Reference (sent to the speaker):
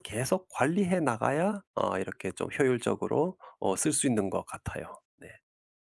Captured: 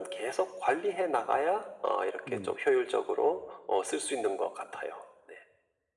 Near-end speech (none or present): present